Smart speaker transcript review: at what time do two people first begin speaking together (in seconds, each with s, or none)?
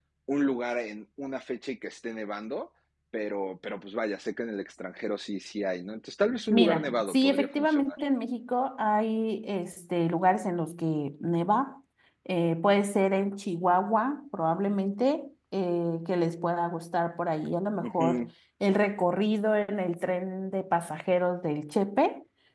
6.5 s